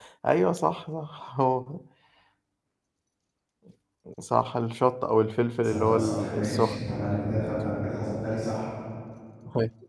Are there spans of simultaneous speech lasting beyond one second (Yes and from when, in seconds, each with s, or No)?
Yes, from 5.6 s